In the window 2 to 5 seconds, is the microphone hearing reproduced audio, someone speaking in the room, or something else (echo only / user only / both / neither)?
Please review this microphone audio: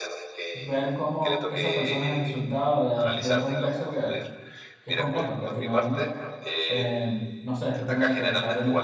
both